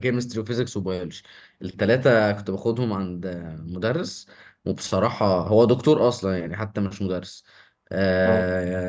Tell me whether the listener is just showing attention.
Yes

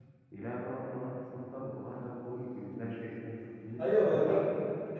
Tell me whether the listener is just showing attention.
No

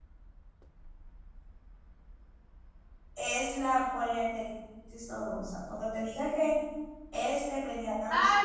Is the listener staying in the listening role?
No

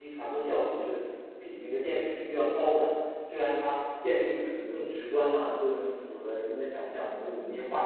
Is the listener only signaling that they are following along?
Yes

